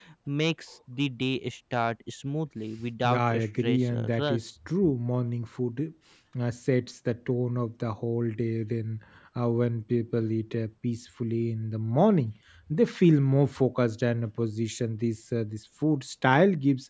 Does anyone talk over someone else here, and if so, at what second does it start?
3 s

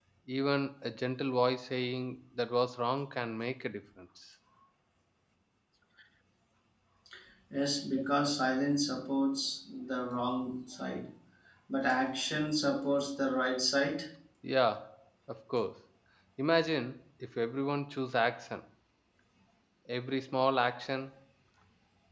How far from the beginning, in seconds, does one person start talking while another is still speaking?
none

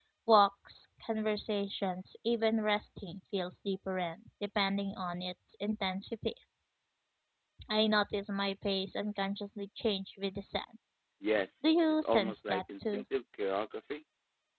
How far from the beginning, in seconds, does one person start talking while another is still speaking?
12 s

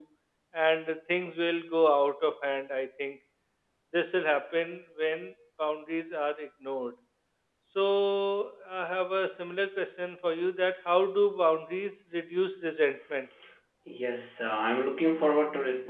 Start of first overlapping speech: none

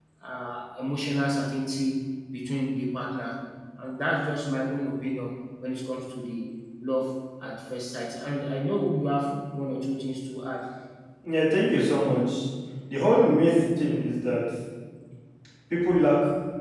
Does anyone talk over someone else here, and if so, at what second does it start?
none

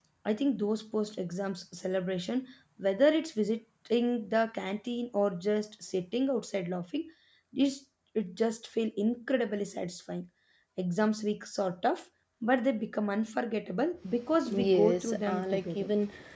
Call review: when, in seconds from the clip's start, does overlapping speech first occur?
14 s

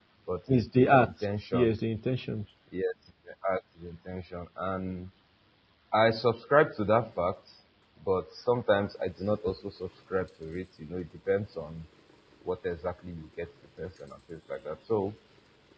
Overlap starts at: 1 s

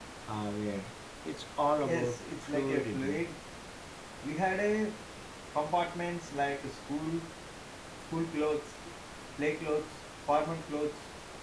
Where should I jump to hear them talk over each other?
2 s

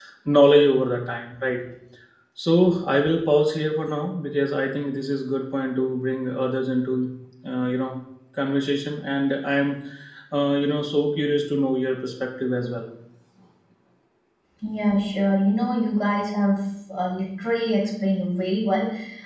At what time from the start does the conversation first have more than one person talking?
none

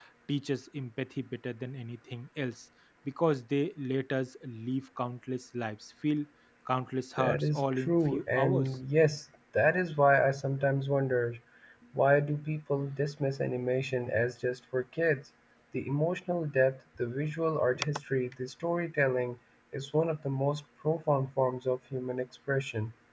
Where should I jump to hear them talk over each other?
7 s

